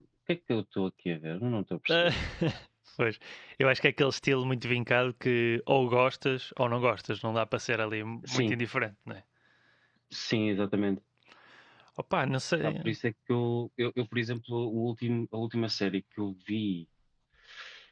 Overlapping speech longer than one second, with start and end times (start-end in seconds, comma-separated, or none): none